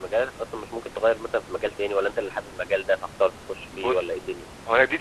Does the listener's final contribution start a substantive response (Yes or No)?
Yes